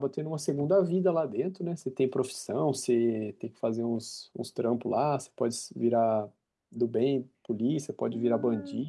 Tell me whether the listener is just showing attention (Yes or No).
No